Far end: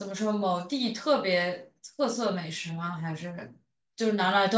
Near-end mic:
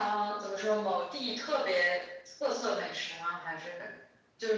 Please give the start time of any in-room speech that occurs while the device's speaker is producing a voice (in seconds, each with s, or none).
none